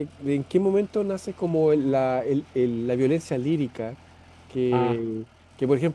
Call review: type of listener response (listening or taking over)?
listening